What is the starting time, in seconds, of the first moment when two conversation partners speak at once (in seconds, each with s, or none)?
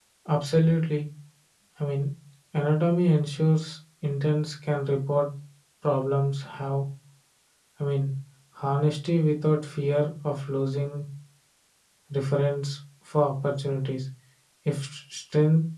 none